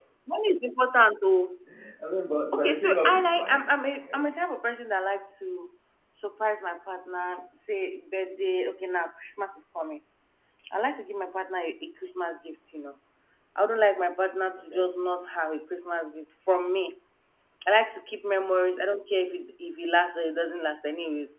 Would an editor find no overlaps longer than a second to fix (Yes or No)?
No